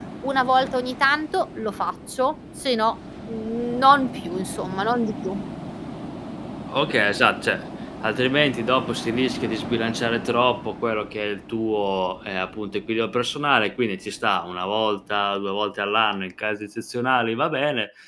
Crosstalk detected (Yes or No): No